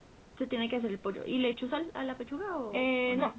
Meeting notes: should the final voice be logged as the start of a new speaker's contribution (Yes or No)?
Yes